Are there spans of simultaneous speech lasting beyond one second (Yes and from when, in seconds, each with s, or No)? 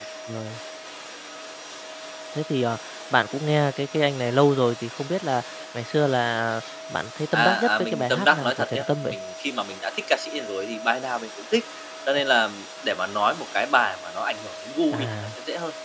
Yes, from 7.3 s